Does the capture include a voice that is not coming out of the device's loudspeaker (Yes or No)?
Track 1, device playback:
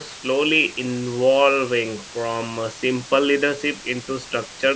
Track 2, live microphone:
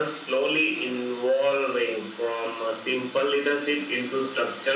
No